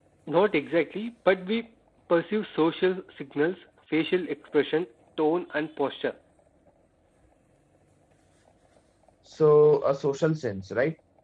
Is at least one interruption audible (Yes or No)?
No